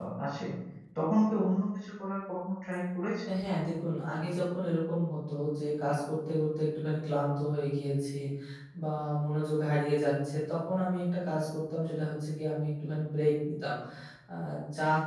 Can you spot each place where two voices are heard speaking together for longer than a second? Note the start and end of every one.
none

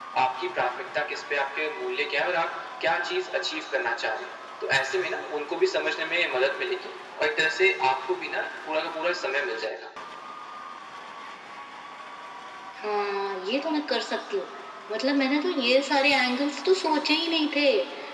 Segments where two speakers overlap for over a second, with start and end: none

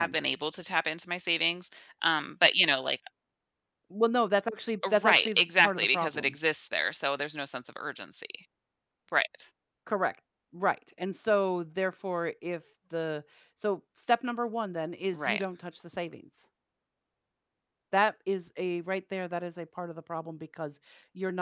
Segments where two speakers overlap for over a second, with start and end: 5.0-6.3

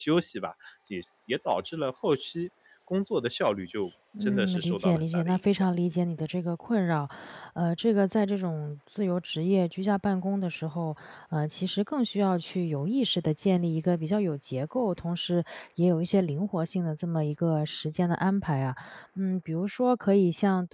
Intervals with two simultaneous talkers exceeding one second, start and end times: 4.2-5.7

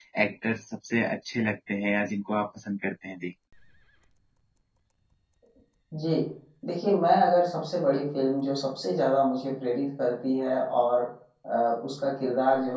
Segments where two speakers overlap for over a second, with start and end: none

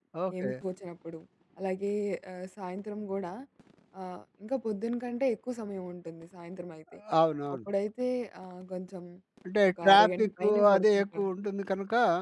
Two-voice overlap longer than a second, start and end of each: 9.8-11.3

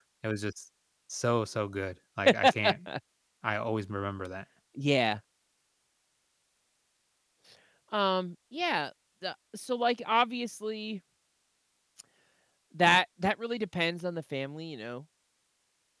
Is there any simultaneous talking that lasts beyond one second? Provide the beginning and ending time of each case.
none

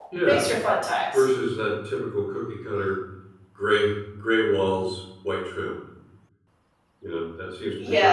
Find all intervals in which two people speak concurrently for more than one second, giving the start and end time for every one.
none

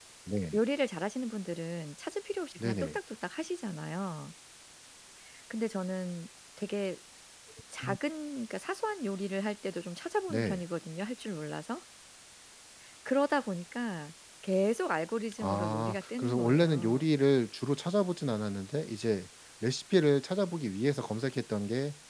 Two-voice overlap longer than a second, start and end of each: 15.4-17.1

